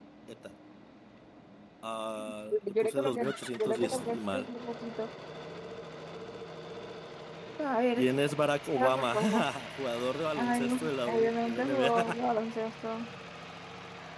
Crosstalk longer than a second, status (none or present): present